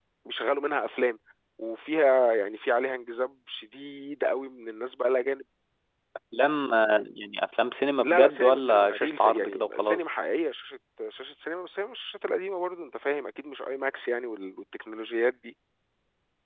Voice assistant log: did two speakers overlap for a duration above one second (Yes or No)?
Yes